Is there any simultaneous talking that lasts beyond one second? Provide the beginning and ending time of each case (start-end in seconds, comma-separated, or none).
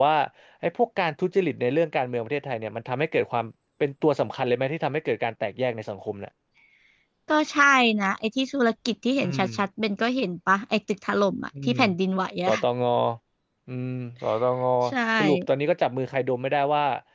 none